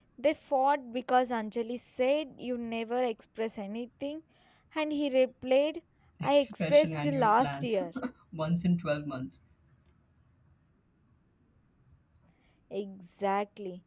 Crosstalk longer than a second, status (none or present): present